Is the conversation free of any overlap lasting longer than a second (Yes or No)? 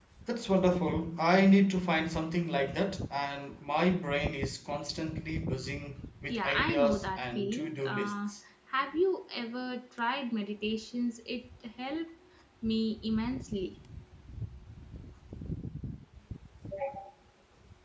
No